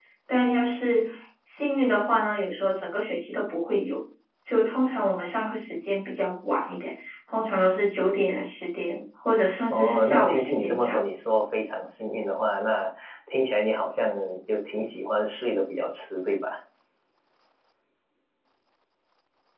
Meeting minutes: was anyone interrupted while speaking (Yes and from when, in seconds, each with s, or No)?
Yes, from 9.7 s